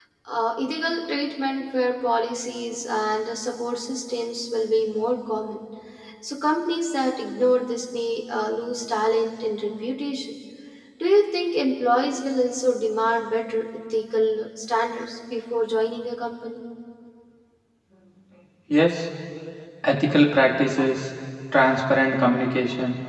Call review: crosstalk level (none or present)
none